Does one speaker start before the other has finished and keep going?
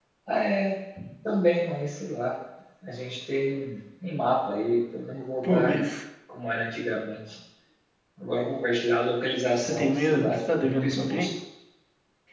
Yes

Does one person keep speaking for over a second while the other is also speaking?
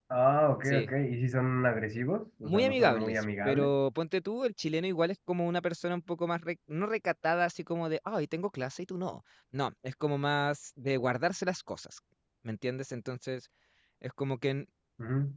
Yes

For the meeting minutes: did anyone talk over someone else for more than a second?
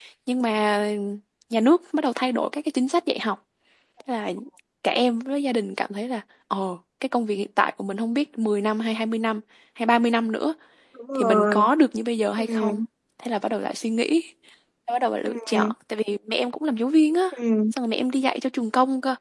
No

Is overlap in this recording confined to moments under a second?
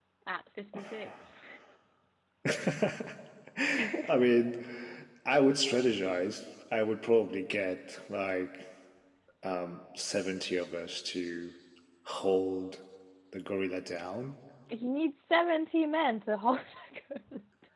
Yes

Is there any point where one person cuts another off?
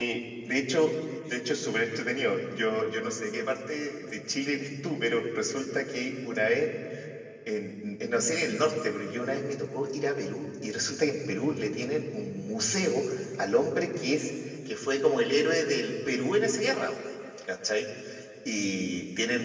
No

